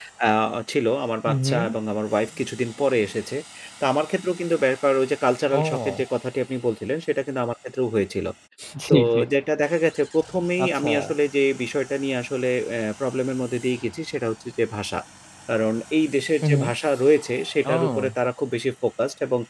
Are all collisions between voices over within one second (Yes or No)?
Yes